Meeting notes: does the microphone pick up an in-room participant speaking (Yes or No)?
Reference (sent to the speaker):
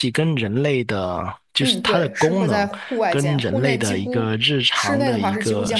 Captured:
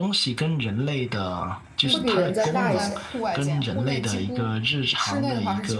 Yes